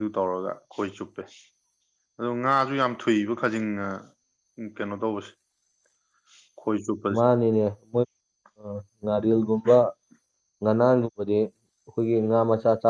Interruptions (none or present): none